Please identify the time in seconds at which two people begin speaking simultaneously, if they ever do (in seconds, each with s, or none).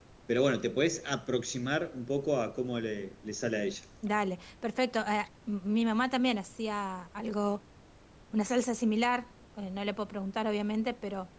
none